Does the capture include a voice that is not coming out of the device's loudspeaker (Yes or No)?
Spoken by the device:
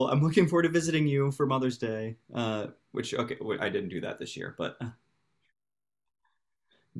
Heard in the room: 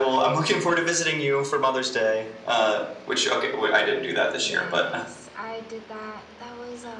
Yes